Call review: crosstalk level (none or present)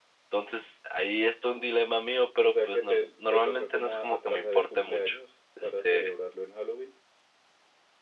present